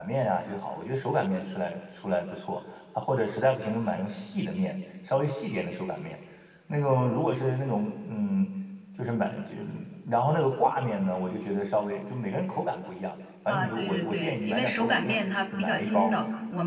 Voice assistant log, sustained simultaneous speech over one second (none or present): present